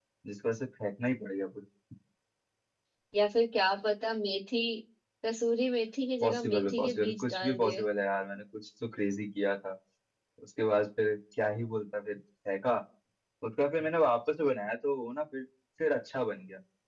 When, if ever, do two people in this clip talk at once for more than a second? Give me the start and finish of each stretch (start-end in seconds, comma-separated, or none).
6.2-7.9